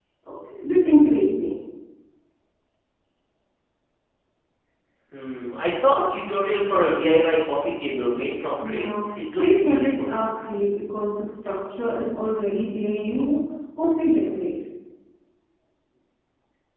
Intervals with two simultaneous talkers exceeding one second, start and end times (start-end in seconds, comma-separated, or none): 8.7-10.2